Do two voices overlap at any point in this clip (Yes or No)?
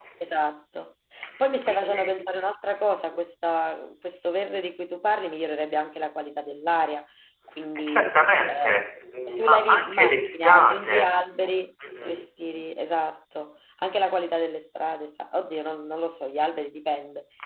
Yes